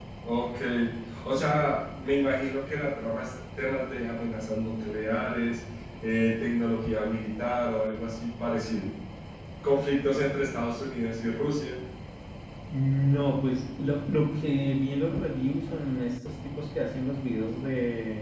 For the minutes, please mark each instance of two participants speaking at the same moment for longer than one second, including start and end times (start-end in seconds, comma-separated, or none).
none